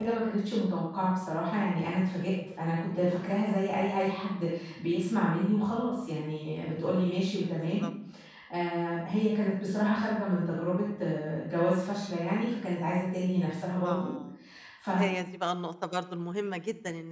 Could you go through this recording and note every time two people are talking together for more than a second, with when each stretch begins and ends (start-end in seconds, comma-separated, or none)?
none